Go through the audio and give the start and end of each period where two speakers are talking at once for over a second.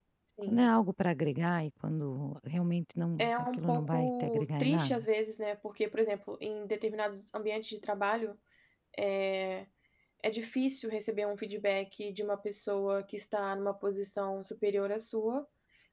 3.2-5.0

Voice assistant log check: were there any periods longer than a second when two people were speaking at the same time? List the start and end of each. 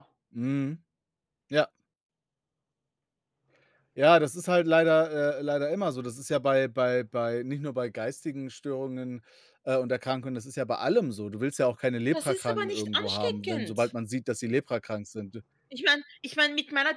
12.1-13.9

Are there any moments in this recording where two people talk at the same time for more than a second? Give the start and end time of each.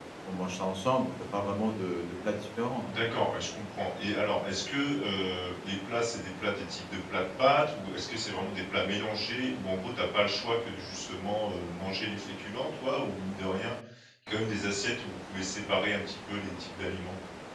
none

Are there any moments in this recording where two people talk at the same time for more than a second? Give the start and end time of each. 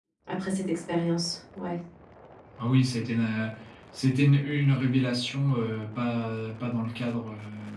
none

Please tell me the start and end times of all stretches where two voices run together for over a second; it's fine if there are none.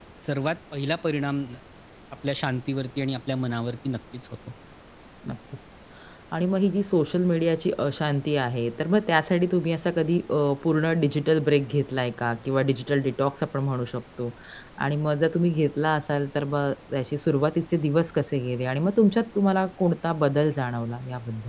none

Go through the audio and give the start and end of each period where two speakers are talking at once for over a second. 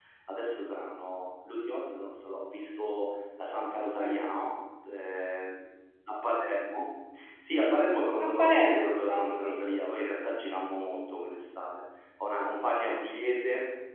8.2-9.8

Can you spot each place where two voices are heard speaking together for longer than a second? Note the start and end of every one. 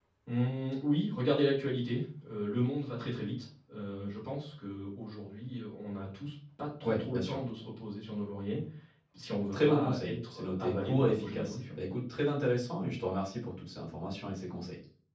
9.5-11.8

